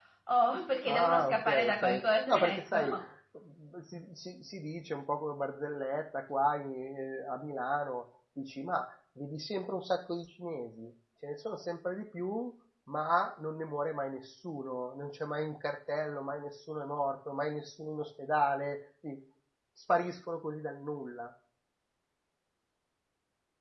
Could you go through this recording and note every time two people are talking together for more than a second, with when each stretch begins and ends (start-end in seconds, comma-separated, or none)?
0.9-2.9